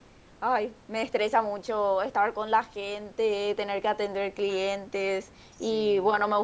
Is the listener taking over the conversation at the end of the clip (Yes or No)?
No